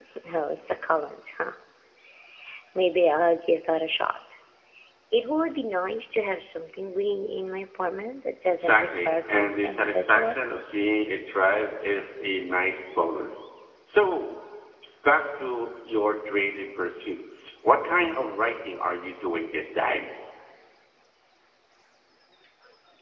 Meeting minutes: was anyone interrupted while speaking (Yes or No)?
Yes